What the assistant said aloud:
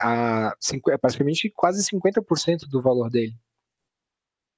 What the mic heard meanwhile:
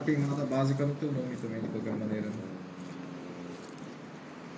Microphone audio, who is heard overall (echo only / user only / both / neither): user only